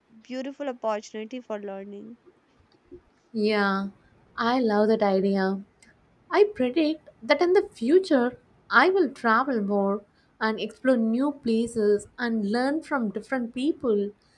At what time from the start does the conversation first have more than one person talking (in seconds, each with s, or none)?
none